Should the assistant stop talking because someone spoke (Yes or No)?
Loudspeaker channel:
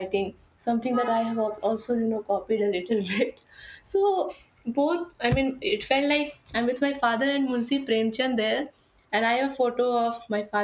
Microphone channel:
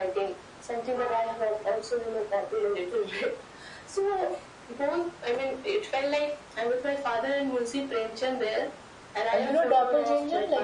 Yes